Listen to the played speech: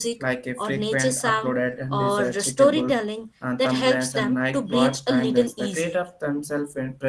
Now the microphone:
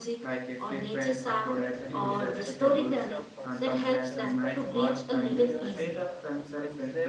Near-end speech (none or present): present